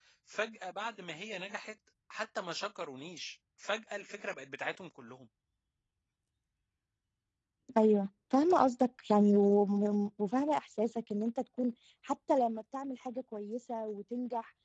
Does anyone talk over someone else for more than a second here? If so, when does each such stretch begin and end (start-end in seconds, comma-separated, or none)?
none